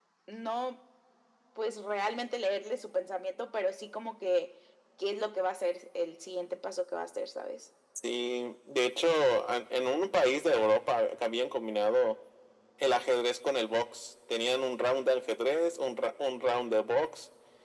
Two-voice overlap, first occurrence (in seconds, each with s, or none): none